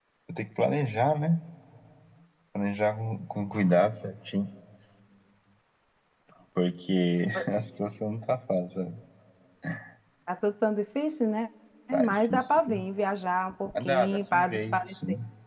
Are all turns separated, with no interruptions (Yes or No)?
No